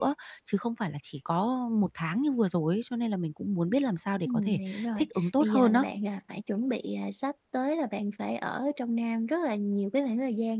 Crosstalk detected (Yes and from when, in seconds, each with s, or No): Yes, from 4.2 s